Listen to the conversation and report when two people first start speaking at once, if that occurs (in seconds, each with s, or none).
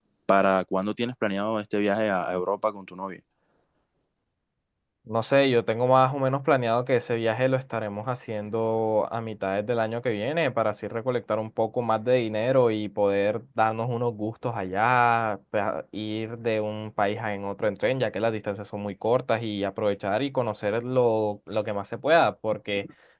none